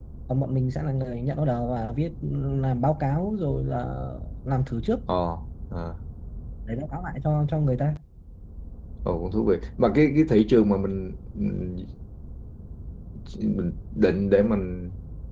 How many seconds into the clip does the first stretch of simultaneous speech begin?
none

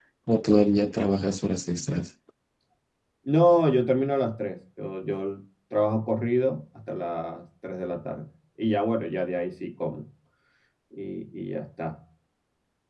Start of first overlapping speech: none

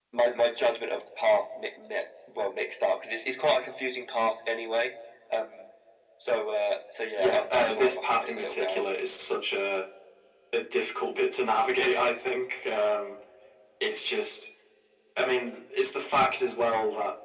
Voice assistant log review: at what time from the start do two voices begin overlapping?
7.2 s

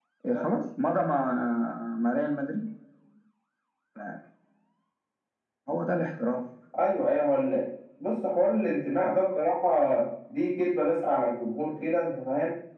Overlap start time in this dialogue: none

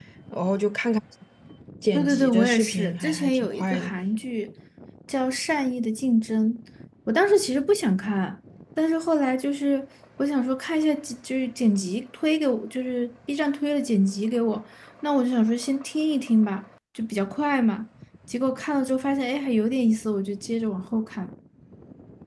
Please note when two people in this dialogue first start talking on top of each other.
1.9 s

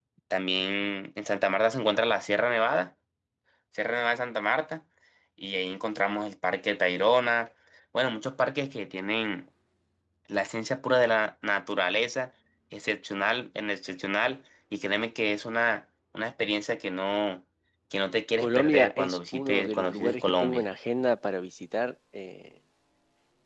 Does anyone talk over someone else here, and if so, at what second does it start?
18.4 s

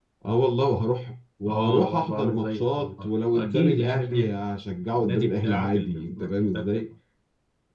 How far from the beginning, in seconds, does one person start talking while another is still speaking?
1.5 s

